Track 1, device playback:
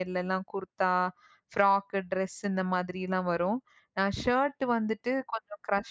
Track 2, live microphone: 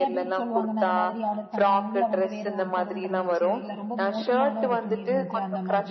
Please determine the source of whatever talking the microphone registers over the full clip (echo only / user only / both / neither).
both